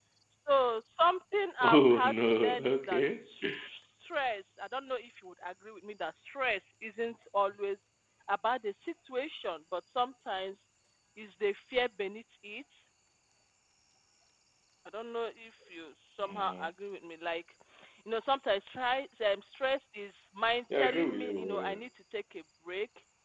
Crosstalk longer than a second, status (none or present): present